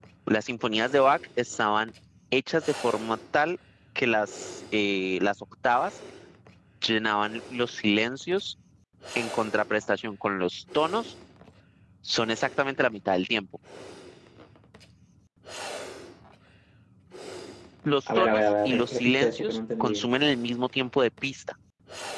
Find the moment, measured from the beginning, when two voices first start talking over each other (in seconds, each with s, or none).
18.1 s